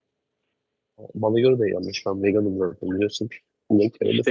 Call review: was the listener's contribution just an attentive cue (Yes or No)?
No